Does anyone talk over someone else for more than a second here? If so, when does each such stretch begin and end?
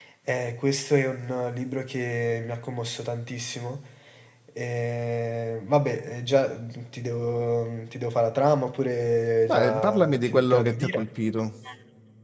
9.5-11.1

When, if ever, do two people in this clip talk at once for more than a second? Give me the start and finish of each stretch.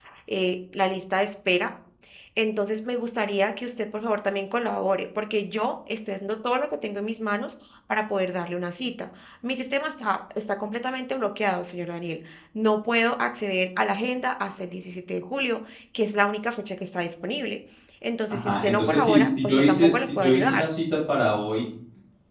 18.3-20.7

